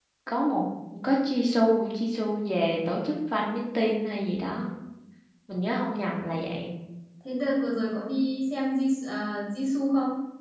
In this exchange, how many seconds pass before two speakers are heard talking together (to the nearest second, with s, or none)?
none